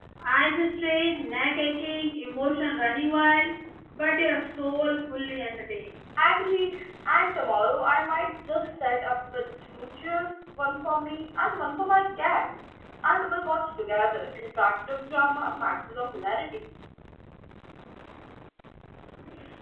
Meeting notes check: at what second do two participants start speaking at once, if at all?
none

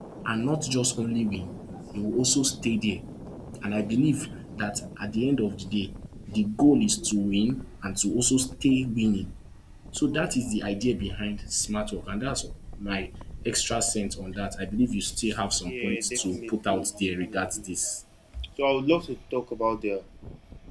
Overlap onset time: 15.7 s

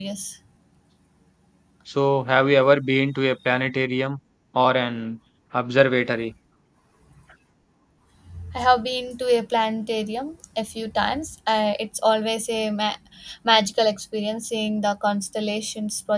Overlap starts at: none

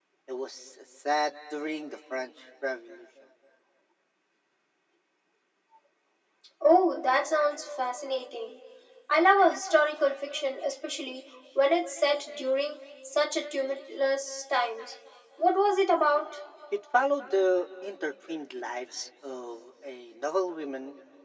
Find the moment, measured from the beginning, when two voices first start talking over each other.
none

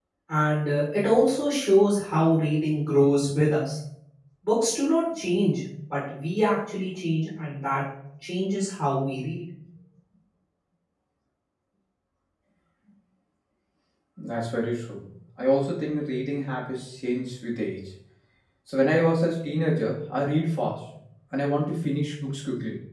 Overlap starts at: none

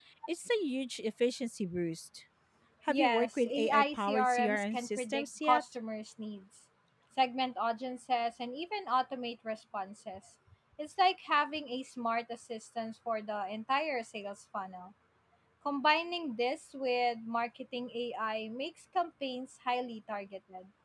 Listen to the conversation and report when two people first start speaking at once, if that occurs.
2.9 s

